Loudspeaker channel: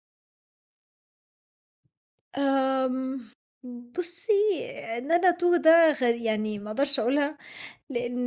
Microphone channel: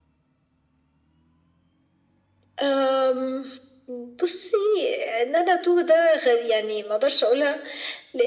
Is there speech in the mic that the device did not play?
No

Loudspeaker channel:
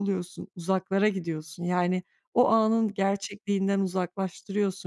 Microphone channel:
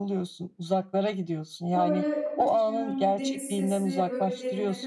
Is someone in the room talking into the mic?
Yes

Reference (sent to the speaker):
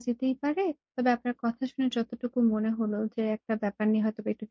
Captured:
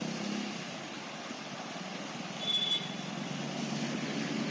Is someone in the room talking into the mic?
No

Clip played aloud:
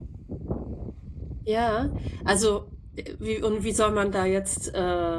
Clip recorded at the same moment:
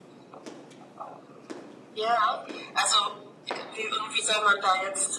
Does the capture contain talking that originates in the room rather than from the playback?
No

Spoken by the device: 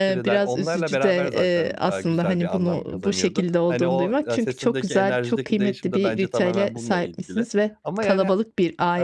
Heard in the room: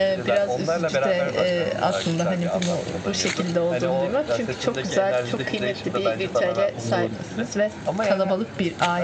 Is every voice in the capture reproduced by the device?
No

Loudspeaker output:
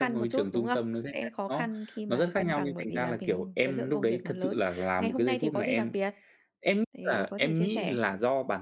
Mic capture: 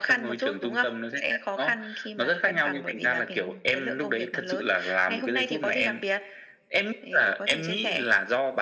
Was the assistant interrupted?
No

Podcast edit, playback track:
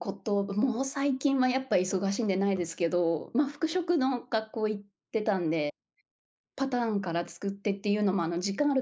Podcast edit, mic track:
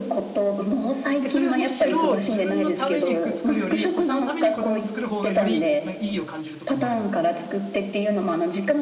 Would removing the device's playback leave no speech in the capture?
No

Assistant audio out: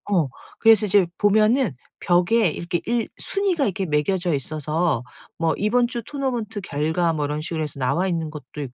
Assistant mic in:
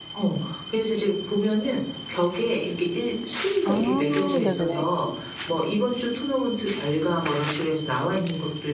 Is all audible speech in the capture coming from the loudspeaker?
No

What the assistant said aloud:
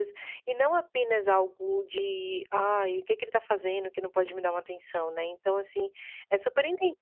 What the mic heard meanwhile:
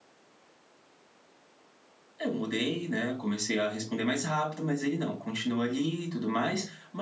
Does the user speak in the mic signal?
Yes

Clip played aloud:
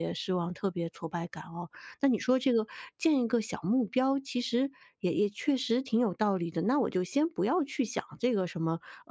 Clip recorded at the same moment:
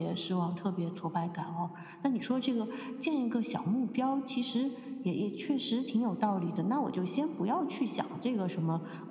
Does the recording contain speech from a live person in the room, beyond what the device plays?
No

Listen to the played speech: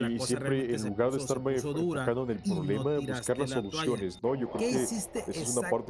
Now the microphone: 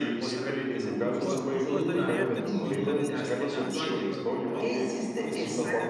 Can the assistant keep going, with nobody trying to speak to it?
No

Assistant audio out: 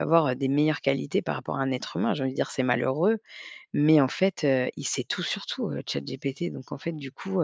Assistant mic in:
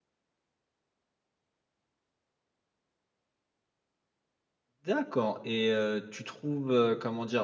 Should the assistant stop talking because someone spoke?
Yes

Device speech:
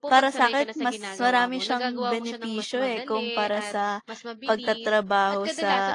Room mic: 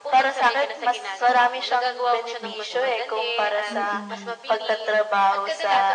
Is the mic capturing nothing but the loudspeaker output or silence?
No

